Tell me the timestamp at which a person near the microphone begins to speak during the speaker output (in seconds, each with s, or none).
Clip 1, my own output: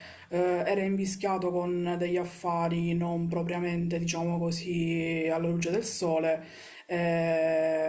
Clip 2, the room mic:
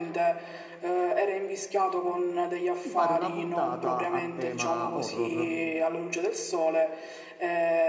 2.8 s